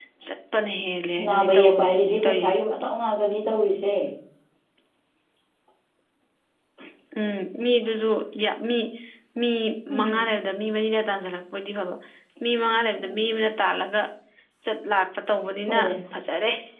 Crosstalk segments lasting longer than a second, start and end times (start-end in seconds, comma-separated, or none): 1.2-2.6